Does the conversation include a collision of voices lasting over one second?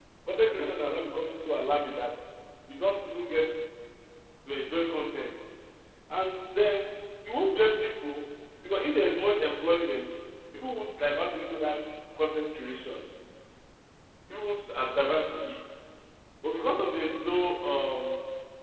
No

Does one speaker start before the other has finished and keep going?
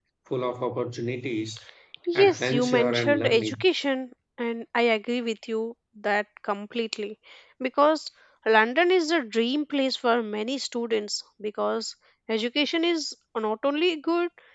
Yes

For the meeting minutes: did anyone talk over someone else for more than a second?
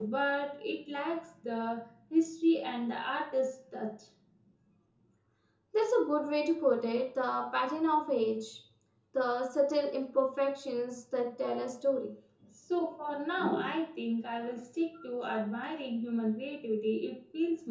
No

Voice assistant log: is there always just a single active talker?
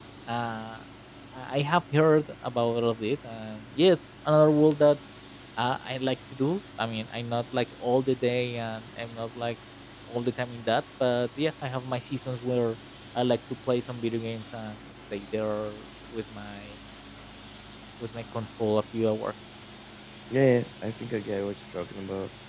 Yes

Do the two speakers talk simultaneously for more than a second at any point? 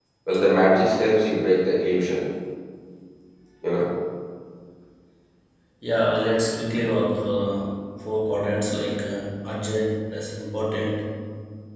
No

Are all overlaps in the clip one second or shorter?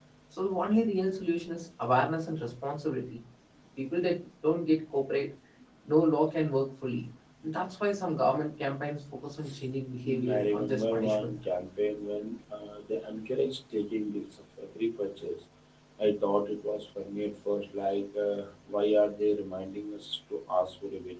No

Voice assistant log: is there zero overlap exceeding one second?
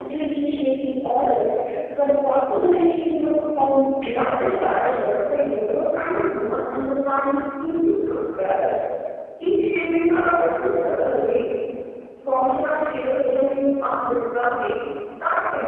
No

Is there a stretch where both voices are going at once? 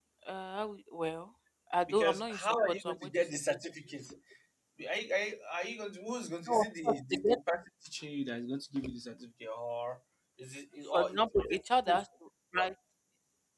Yes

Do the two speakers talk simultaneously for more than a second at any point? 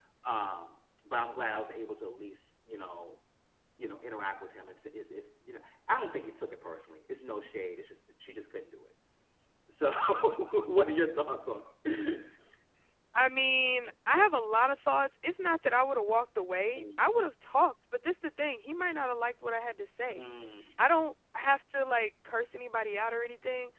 No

